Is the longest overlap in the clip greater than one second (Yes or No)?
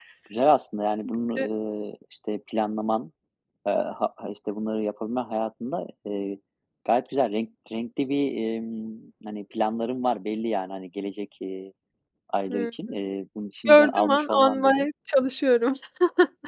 Yes